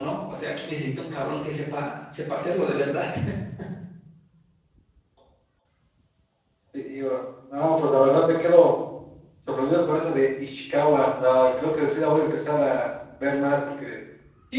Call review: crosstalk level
none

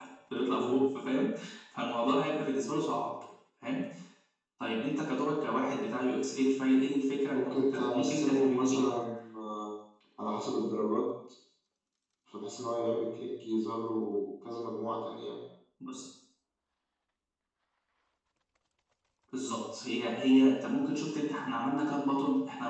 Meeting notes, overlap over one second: present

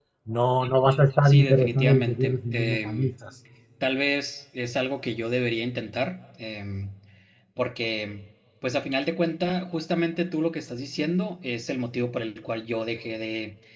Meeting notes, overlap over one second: present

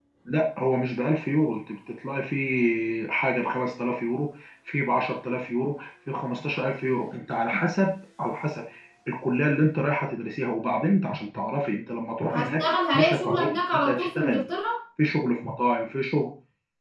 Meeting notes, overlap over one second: present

